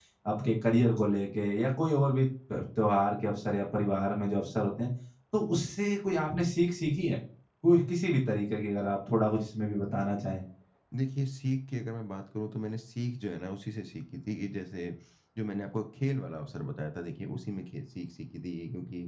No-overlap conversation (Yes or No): Yes